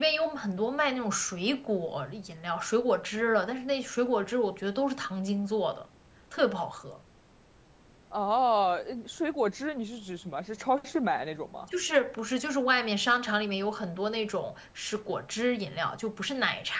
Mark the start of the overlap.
none

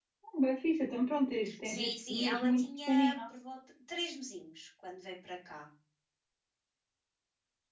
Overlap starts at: 1.4 s

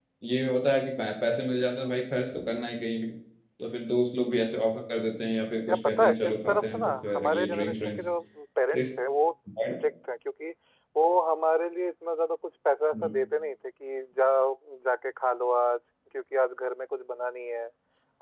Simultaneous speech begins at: 5.7 s

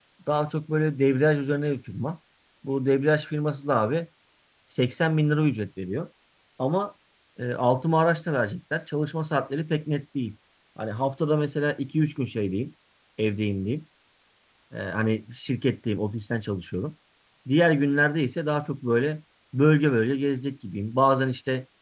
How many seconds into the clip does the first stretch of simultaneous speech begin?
none

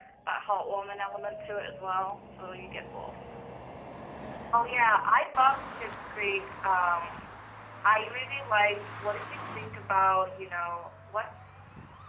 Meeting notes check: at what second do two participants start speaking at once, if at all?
none

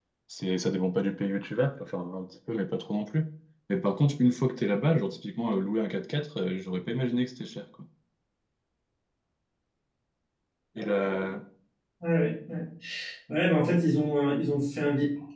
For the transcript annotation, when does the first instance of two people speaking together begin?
none

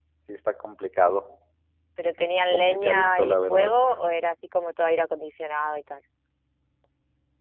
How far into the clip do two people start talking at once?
2.5 s

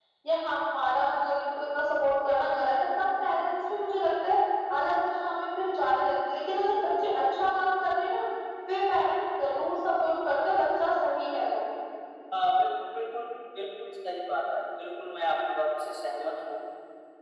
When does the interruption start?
none

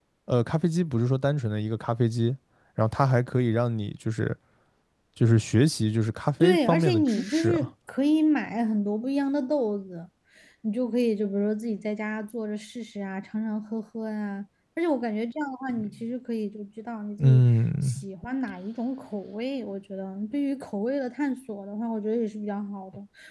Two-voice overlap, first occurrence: 6.4 s

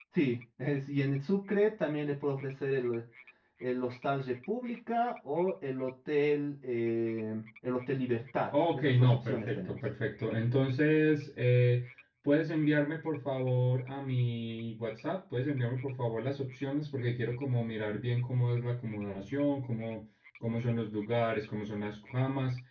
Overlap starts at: 8.5 s

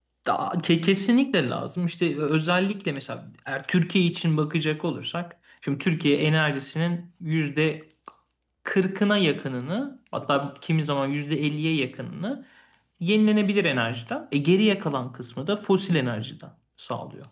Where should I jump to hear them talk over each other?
none

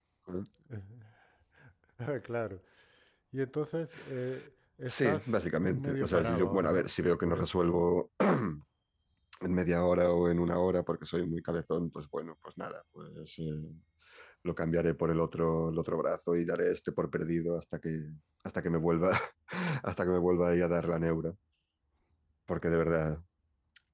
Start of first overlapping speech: 4.9 s

